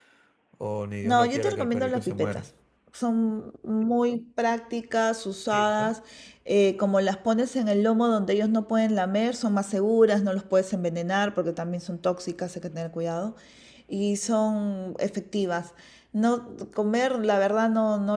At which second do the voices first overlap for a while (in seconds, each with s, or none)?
1.0 s